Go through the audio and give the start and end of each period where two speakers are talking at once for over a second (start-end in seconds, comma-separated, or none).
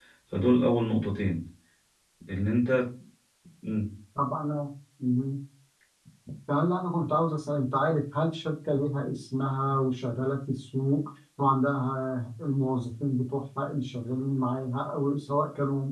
none